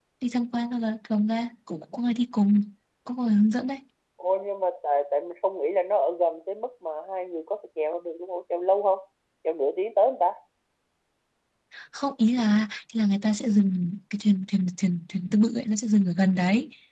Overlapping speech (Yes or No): No